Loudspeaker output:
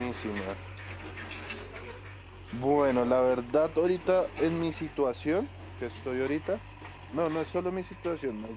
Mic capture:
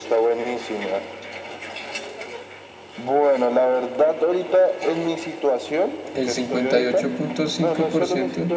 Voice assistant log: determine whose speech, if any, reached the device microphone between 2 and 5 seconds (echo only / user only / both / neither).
echo only